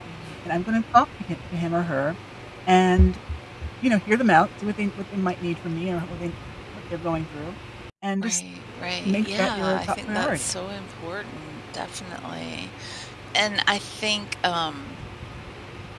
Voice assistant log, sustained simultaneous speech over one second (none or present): present